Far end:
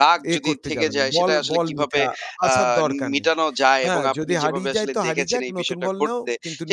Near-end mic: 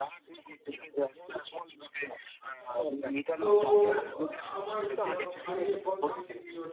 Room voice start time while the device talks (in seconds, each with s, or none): 3.4 s